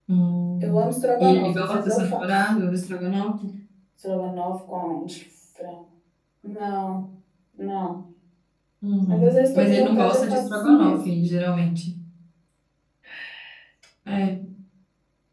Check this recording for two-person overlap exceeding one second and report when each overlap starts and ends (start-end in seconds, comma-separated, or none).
0.6-2.5, 9.1-11.0